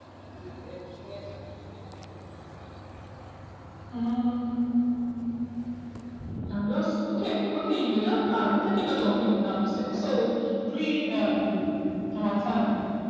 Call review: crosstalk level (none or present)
none